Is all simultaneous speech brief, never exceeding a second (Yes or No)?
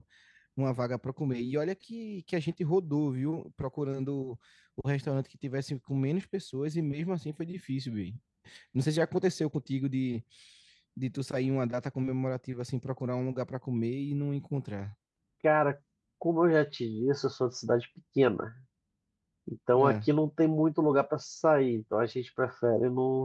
Yes